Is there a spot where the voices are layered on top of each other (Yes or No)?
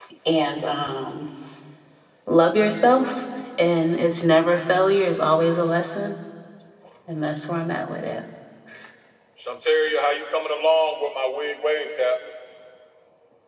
No